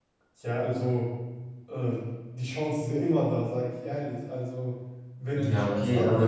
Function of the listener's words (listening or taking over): taking over